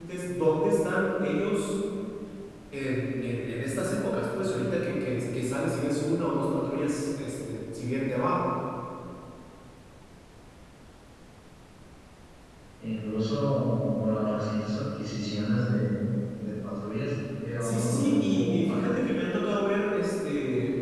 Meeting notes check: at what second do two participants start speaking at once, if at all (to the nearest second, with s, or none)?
18 s